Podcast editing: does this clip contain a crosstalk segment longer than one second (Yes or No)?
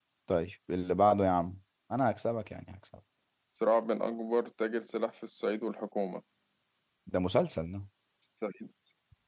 No